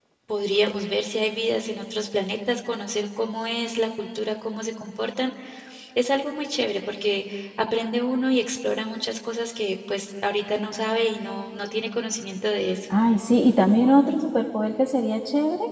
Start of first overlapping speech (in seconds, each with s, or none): none